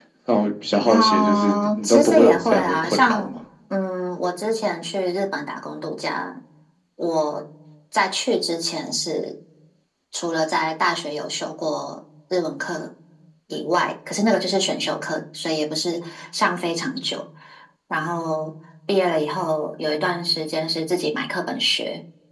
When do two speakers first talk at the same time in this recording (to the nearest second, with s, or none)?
1 s